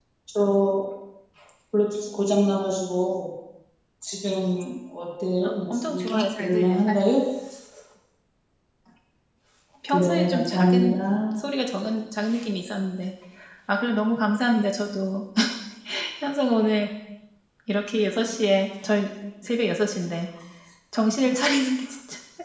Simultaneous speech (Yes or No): Yes